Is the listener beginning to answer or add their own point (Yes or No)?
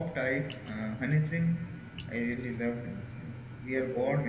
No